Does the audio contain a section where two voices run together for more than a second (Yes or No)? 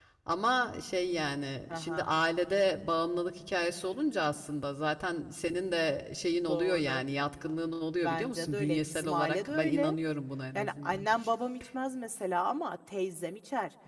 Yes